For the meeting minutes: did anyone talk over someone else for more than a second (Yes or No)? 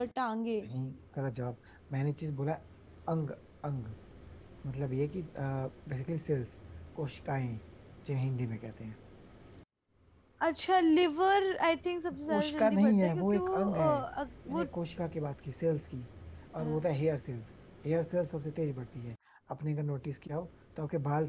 Yes